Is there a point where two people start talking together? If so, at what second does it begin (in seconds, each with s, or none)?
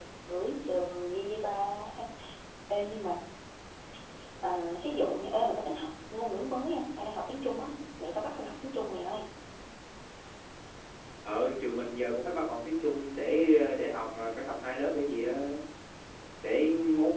none